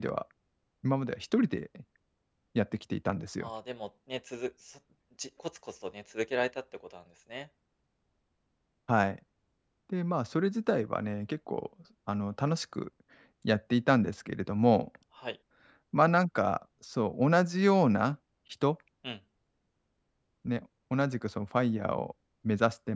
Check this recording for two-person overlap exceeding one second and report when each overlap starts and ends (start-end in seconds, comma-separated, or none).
none